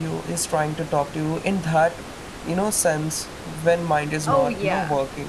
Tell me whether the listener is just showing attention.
No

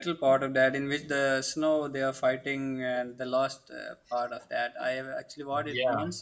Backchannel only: Yes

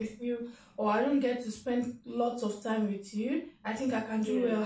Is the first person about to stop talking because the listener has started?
No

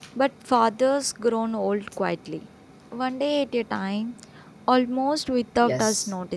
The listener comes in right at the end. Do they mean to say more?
Yes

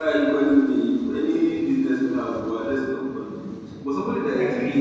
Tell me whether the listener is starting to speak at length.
No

